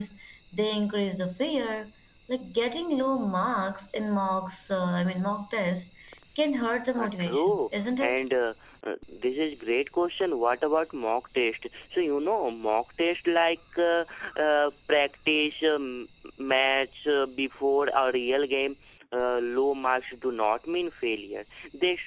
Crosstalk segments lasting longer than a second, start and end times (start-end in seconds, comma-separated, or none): 7.0-8.2